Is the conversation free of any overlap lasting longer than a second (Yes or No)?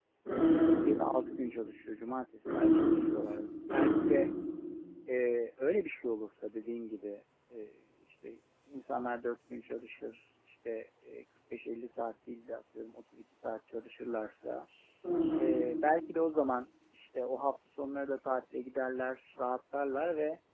Yes